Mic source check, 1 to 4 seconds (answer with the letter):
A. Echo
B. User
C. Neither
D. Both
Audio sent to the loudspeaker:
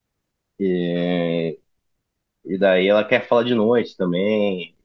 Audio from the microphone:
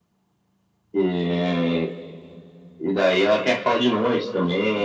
A